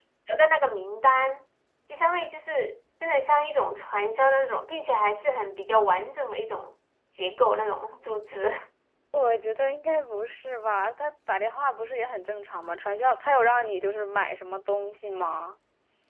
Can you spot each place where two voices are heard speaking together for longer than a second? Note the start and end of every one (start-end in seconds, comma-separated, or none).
none